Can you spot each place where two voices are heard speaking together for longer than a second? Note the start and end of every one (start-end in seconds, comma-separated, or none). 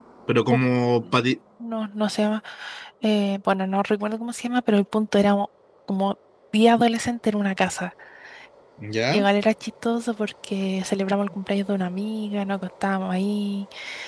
none